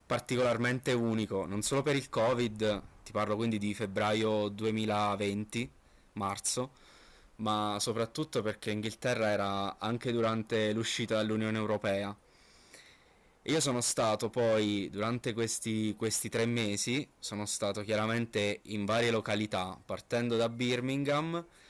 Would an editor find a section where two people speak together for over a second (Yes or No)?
No